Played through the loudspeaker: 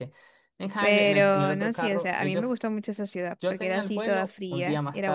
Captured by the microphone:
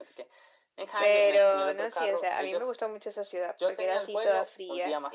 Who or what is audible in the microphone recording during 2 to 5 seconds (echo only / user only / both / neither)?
echo only